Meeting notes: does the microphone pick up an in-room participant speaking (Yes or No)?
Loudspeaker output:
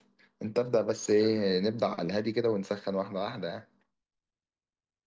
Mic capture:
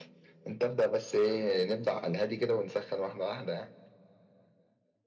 No